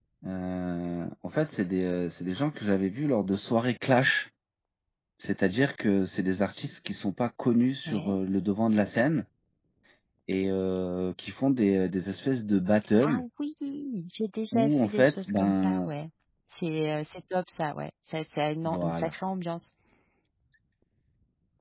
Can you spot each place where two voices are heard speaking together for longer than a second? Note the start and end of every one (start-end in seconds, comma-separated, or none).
14.5-15.9